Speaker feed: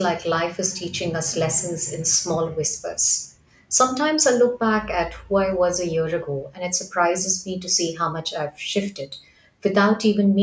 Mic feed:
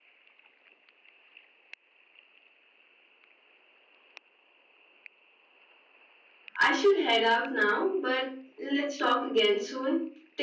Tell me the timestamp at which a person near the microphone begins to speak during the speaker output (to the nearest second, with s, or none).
7 s